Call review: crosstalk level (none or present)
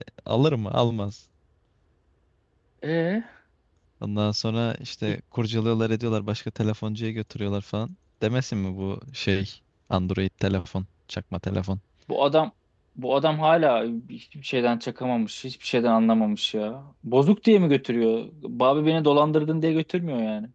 none